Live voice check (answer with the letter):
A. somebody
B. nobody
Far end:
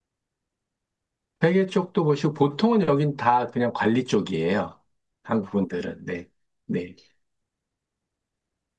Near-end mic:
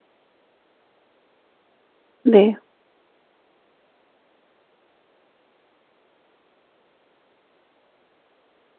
A